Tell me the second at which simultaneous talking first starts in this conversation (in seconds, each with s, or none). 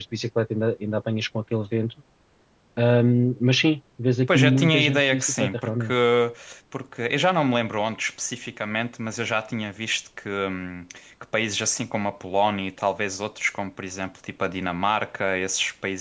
4.3 s